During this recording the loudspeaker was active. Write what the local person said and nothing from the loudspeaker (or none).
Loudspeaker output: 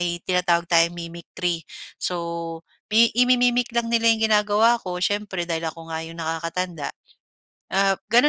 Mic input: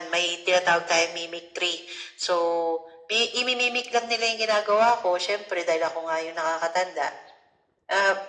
none